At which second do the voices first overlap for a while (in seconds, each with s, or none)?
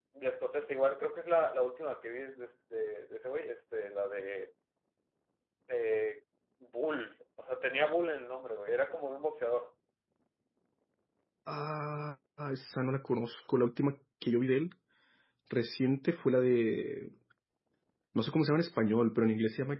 none